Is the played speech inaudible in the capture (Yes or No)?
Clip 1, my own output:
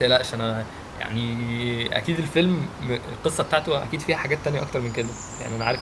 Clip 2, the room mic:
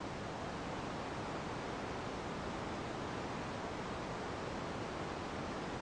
Yes